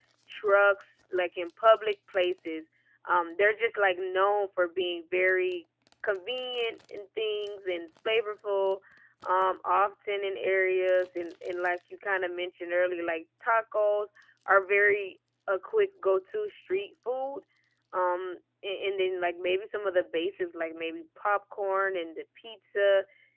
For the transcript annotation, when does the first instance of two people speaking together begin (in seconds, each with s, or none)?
none